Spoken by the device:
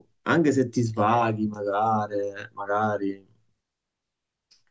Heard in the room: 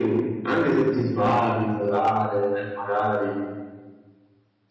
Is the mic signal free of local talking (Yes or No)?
Yes